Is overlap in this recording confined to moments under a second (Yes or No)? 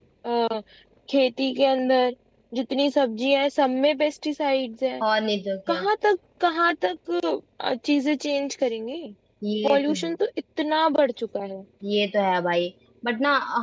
Yes